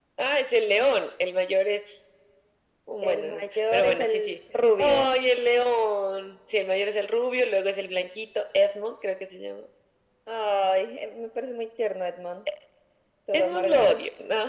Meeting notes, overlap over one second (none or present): present